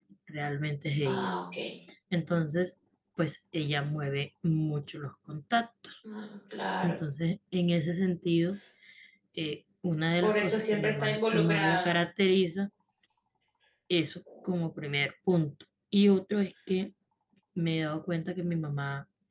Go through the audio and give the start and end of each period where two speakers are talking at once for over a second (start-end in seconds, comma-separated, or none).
10.2-11.9